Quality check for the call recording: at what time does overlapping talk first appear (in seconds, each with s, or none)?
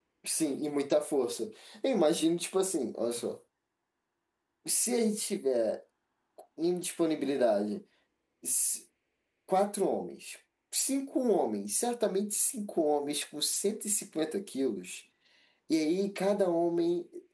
none